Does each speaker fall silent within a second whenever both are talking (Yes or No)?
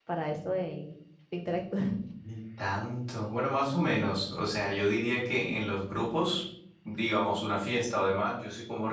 Yes